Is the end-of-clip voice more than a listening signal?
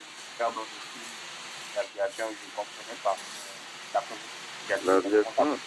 Yes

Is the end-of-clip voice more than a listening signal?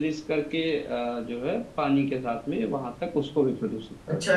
Yes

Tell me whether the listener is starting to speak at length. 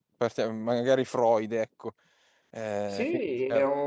Yes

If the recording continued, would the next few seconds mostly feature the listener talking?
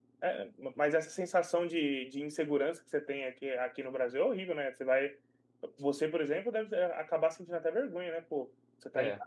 No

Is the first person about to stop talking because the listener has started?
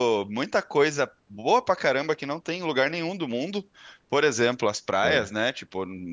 No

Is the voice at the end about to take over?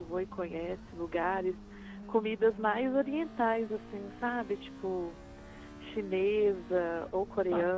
Yes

